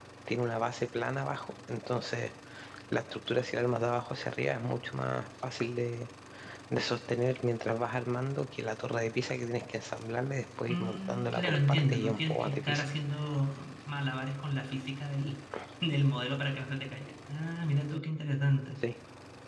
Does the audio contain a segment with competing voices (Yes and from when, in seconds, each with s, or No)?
Yes, from 10.7 s